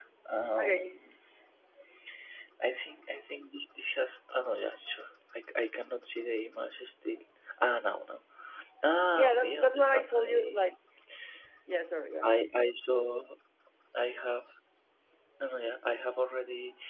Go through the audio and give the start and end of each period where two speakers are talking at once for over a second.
9.2-10.6

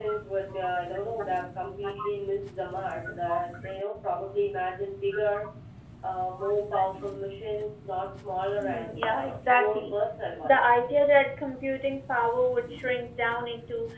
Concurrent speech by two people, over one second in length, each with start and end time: 8.6-10.0

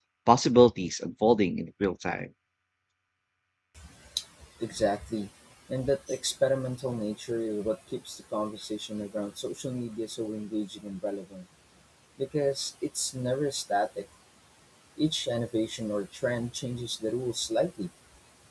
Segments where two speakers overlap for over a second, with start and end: none

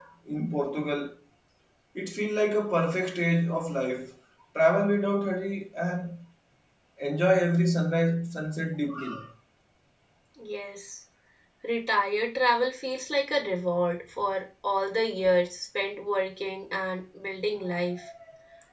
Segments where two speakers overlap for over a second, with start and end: none

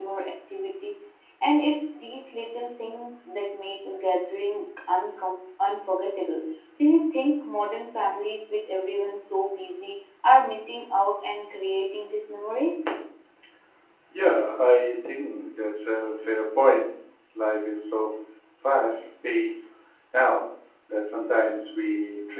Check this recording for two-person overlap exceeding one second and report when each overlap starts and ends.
none

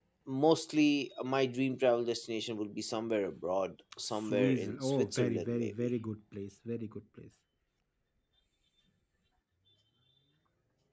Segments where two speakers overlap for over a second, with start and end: 4.2-5.9

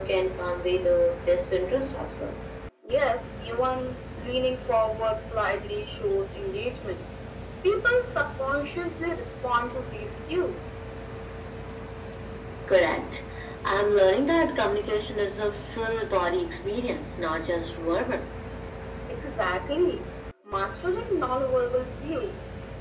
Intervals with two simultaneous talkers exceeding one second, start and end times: none

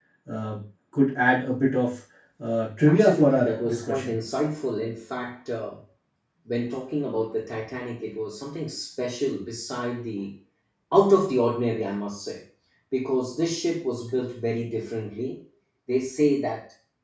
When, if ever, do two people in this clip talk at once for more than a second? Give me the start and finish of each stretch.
2.9-4.2

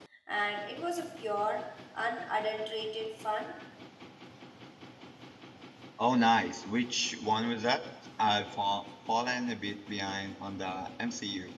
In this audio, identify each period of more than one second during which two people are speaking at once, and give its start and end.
none

